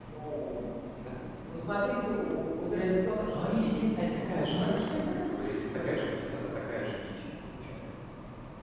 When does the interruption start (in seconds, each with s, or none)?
3.3 s